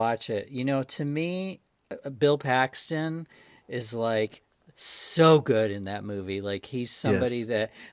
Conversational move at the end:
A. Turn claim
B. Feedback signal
B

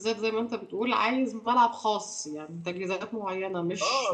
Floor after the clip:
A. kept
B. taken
B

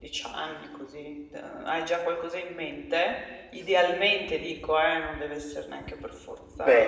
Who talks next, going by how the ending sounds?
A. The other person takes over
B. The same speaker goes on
A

